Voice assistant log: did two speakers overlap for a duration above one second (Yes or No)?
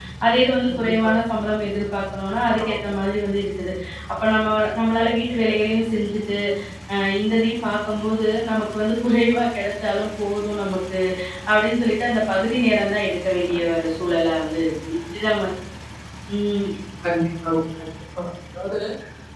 No